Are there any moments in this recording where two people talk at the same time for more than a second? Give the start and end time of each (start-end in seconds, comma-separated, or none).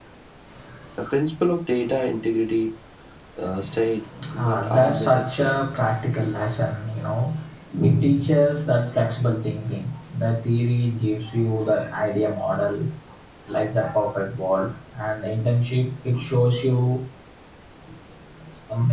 4.3-5.6